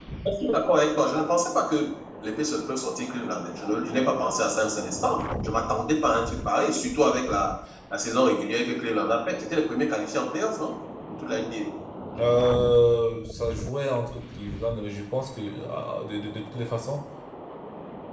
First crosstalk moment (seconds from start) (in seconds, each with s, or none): none